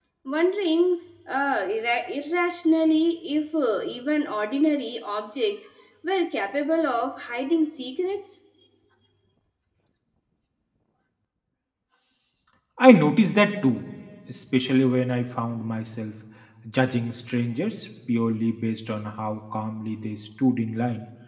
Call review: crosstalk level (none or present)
none